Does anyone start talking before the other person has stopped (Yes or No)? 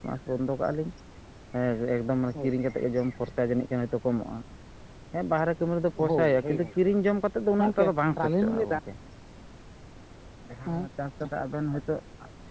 Yes